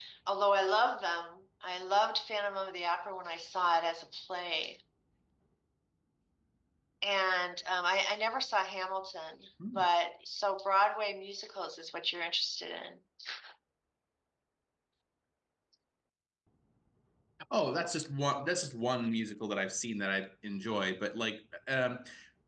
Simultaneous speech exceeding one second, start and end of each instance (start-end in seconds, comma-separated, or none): none